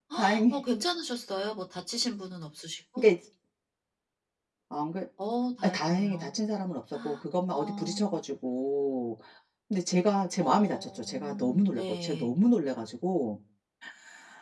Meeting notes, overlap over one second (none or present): present